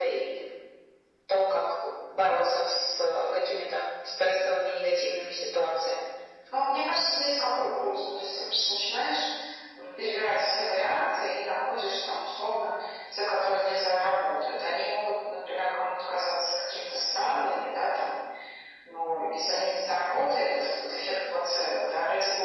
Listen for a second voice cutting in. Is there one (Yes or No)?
No